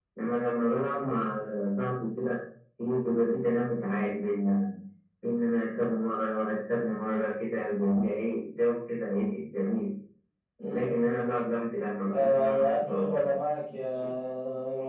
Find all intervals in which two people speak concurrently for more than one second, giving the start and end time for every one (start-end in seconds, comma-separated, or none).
12.1-13.3